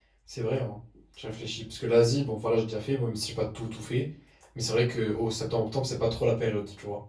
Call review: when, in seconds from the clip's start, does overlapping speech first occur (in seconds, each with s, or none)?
none